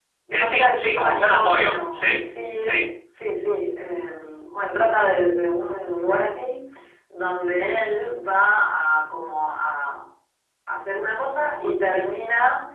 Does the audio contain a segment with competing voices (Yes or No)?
Yes